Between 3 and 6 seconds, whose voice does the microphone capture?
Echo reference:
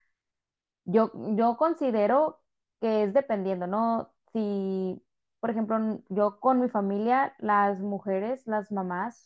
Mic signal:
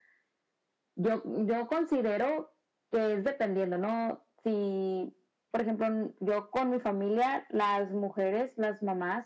echo only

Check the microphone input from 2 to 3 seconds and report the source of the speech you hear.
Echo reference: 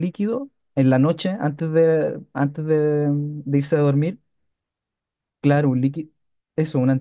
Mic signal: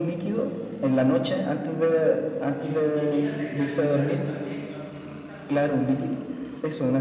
both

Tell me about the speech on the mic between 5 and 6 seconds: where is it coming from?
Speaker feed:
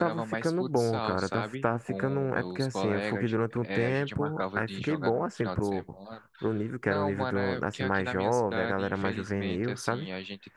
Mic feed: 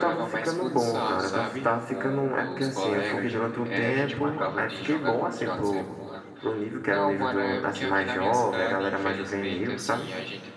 echo only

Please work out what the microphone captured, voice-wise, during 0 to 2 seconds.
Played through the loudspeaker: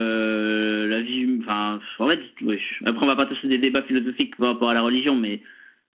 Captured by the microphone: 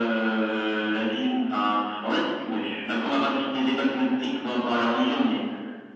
echo only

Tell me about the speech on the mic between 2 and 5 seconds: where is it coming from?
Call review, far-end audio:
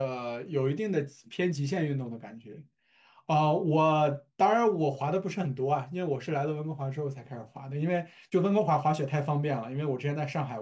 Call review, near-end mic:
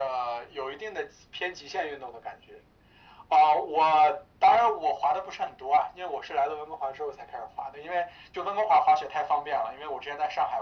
echo only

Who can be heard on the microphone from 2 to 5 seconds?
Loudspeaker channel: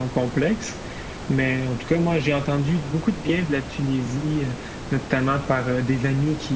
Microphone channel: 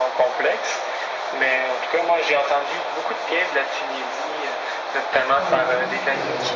echo only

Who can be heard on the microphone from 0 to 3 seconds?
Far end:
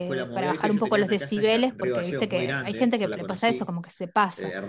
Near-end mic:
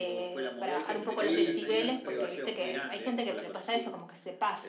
both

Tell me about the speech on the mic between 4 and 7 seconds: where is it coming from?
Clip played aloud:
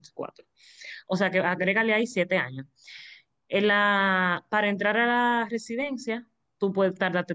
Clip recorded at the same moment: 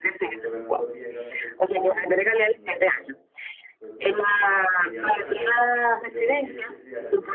both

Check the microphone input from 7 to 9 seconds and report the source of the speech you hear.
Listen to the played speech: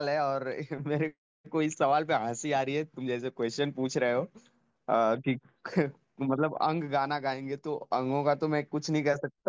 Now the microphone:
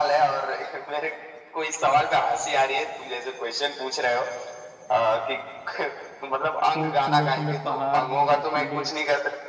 both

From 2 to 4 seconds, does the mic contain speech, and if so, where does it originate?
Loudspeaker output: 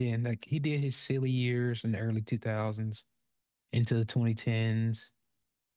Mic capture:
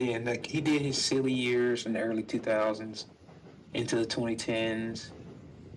echo only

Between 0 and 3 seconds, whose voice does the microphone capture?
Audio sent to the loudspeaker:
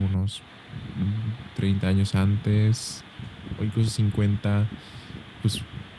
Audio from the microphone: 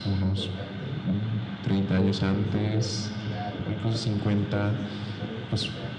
both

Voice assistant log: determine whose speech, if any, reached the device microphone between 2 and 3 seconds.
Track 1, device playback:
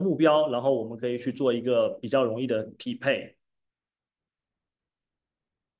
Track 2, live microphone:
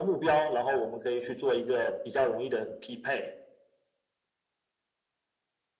echo only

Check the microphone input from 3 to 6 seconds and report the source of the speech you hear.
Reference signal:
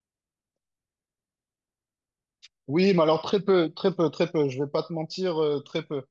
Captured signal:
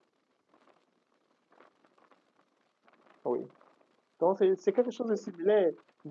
user only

